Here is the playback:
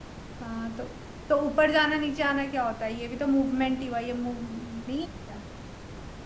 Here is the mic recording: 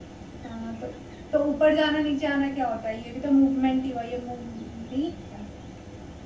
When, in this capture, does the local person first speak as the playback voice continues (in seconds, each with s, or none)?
none